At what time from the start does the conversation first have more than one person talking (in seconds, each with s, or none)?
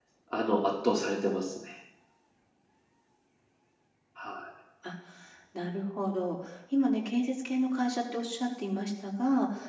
none